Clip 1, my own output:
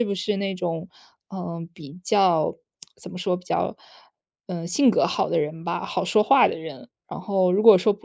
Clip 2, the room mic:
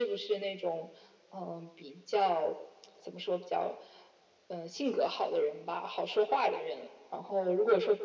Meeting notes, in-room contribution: none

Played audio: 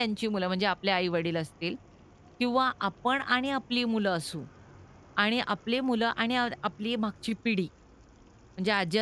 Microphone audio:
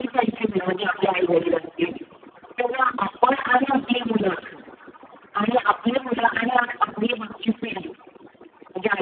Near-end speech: none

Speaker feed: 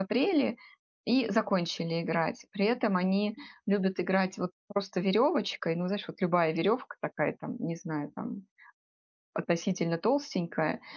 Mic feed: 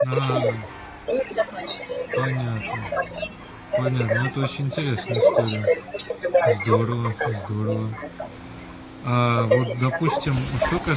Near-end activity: present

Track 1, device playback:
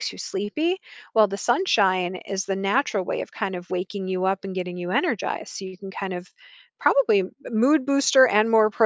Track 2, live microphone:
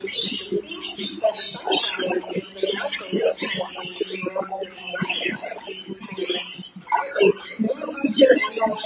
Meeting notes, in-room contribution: none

